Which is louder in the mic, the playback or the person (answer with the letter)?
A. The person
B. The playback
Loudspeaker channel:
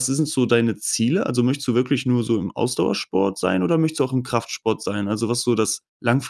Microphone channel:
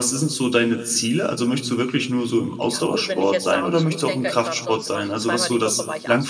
B